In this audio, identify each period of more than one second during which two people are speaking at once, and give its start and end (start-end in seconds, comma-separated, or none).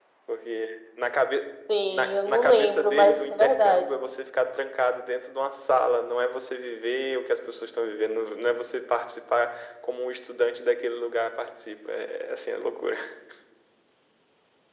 1.9-3.9